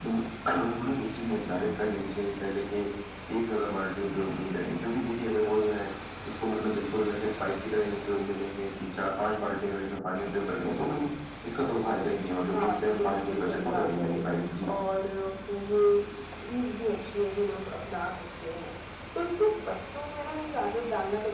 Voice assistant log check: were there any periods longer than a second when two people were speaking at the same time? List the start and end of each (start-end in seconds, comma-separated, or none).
12.5-14.2